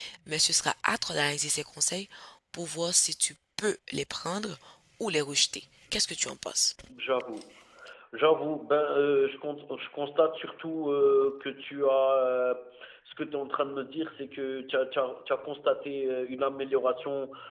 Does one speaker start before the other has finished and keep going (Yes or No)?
No